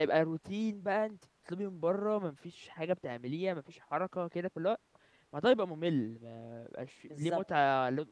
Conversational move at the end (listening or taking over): listening